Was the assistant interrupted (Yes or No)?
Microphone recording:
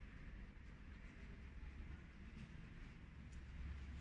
No